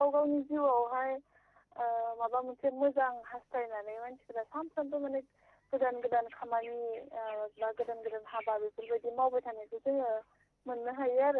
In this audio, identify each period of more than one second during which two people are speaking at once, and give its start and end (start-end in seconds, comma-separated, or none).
none